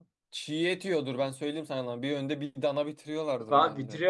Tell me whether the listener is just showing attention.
No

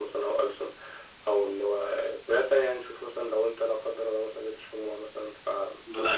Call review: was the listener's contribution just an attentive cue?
No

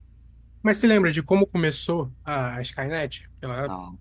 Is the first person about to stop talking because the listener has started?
No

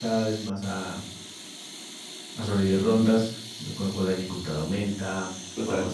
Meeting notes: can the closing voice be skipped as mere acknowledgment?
Yes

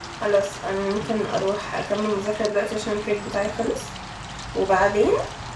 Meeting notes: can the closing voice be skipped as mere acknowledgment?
Yes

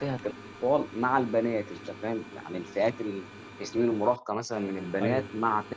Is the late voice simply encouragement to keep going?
Yes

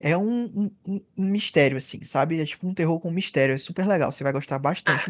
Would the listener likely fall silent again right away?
No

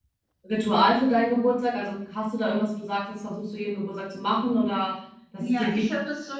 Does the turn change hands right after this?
Yes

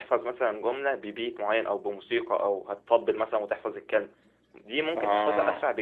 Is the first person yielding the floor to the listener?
No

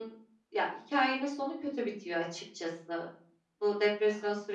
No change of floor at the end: Yes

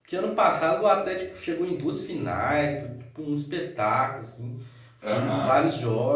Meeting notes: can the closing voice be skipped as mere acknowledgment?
Yes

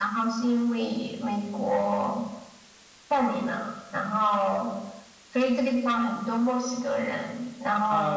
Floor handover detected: Yes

